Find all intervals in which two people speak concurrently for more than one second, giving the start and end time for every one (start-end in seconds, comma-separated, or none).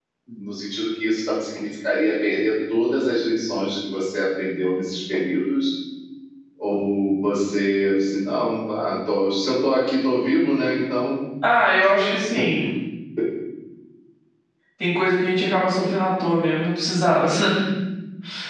none